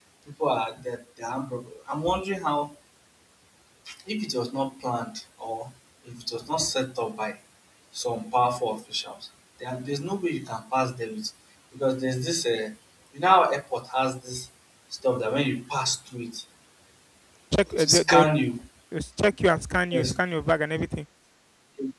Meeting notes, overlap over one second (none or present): none